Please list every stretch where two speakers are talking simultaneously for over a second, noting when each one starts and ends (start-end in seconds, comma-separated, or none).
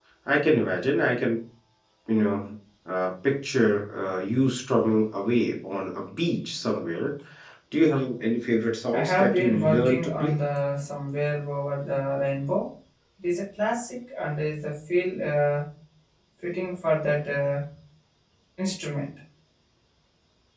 8.9-10.3